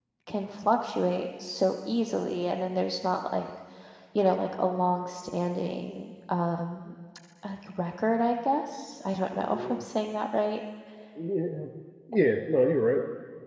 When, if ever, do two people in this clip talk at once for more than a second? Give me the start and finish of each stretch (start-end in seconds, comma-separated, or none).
none